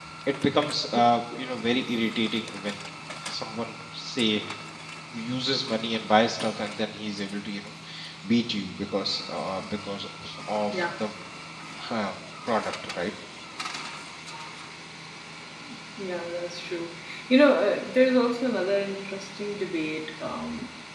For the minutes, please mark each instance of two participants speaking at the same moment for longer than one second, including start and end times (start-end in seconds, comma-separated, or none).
none